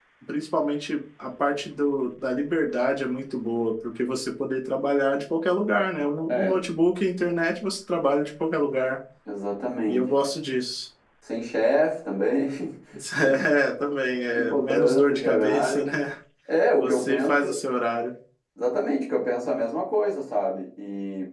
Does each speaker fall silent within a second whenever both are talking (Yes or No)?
No